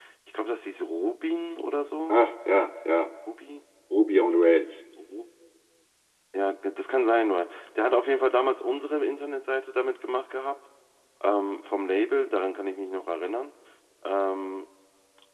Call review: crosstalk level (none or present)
none